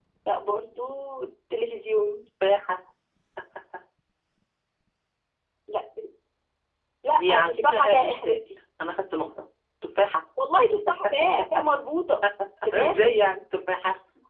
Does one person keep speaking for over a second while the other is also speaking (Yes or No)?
Yes